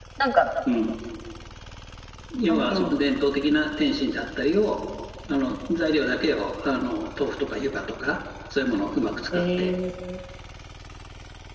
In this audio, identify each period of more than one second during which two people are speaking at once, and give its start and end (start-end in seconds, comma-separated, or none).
none